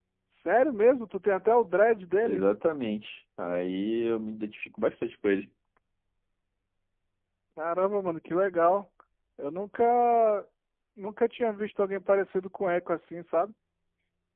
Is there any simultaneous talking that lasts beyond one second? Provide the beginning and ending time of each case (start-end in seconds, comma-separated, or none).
none